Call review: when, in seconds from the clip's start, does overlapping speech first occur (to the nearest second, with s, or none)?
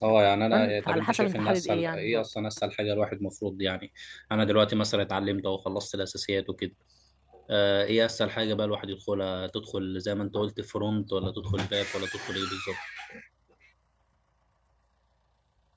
1 s